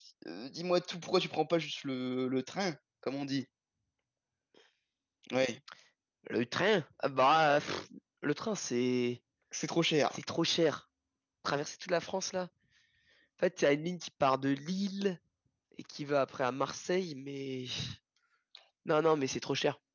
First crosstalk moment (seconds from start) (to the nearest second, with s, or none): none